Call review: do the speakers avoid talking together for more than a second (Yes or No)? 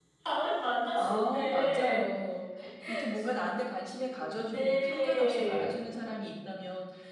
No